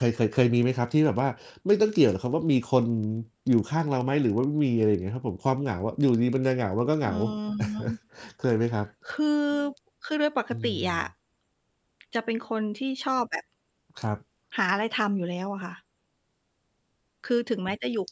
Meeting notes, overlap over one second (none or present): none